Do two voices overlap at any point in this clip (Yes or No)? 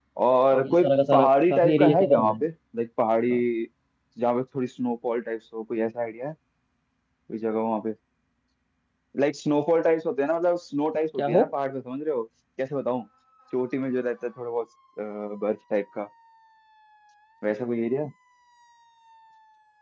Yes